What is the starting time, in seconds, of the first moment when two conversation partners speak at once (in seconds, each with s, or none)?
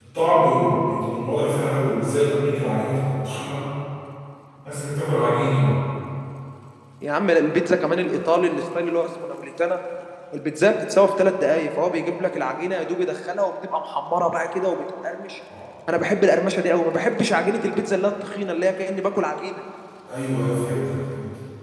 none